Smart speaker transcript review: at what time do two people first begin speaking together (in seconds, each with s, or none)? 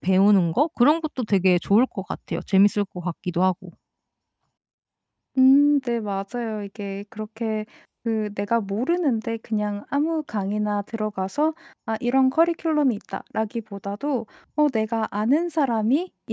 none